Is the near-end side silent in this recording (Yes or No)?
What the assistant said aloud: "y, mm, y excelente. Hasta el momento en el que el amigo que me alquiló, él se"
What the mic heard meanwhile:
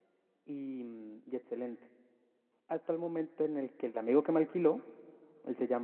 Yes